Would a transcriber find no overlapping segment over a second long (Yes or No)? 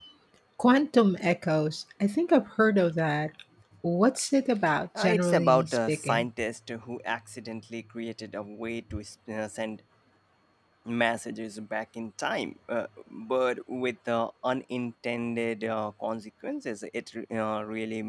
No